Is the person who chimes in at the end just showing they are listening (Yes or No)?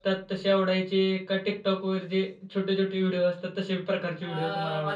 No